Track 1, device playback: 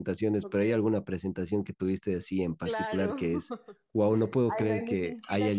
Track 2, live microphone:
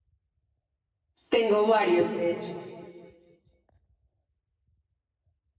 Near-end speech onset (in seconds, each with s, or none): 1.3 s